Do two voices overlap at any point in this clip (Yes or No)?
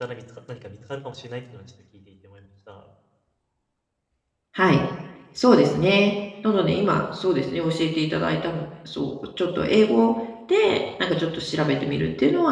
No